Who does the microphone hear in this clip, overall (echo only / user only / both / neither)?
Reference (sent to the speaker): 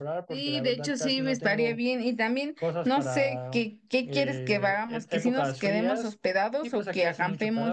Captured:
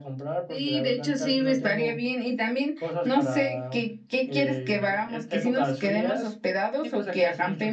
echo only